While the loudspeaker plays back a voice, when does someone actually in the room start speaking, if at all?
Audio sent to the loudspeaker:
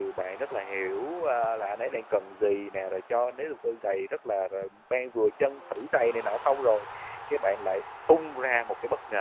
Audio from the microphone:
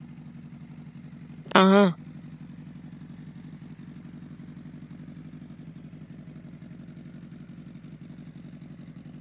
1.6 s

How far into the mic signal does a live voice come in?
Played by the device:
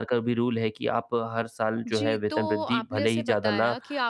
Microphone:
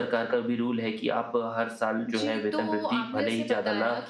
none

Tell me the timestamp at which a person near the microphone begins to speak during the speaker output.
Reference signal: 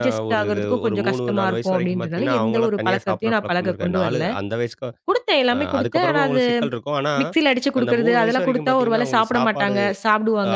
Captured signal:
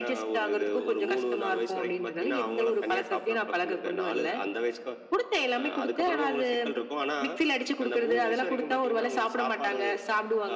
none

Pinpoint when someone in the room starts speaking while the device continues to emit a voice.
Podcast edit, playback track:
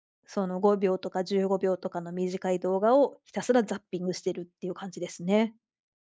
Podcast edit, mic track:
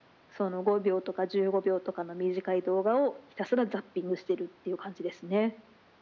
none

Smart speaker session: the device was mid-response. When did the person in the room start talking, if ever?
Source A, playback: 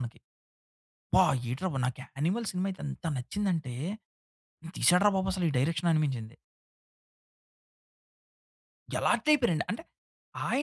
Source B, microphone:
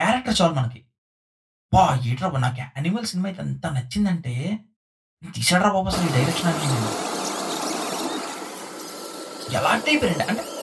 none

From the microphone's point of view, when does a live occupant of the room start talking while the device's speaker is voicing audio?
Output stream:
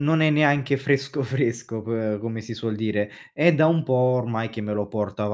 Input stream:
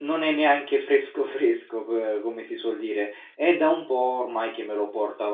none

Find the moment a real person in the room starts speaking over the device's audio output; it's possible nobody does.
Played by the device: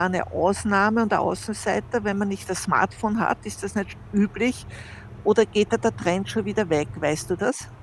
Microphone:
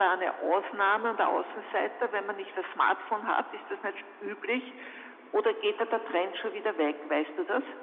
none

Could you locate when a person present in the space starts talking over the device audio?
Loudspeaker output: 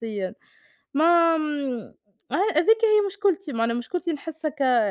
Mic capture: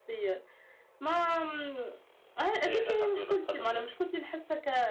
2.6 s

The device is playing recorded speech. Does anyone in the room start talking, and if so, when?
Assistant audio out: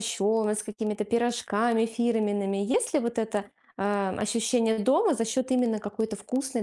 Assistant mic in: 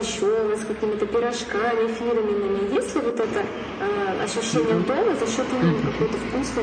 4.5 s

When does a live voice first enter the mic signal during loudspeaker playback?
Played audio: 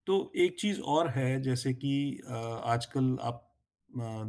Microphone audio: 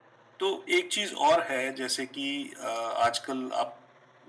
none

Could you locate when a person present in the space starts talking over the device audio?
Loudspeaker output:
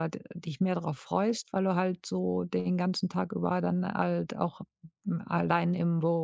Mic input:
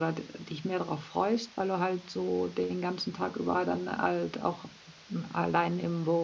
none

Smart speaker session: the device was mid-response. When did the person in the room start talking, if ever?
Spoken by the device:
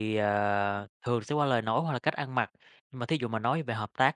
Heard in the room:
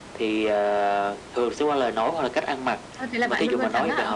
3.0 s

